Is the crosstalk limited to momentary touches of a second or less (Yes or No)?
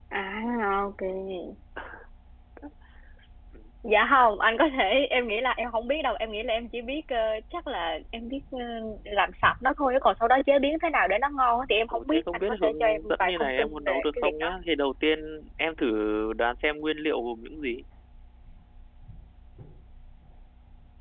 No